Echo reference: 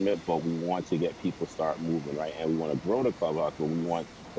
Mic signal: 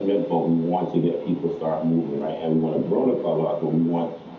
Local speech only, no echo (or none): none